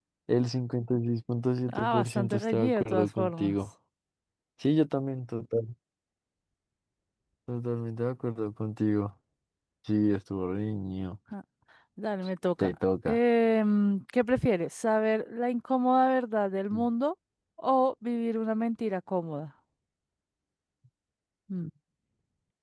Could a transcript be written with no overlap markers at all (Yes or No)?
No